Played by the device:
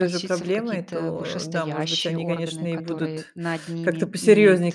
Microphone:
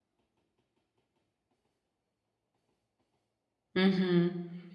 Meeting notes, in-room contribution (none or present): present